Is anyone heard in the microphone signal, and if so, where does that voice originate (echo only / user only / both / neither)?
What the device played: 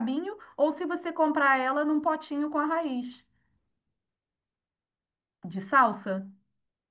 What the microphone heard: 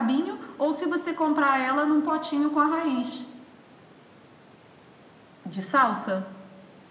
echo only